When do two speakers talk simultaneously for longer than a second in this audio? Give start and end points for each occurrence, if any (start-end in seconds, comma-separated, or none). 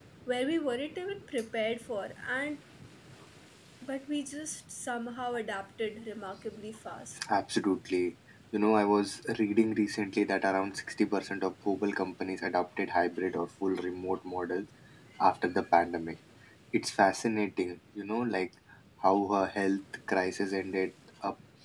none